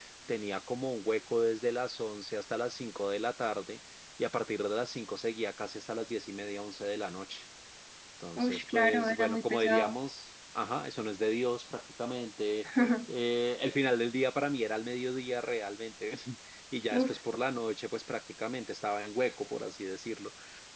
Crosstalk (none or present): present